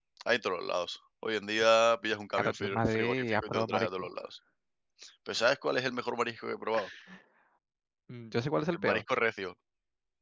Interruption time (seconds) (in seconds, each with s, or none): 2.4 s